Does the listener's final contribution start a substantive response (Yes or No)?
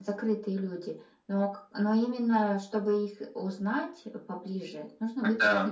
No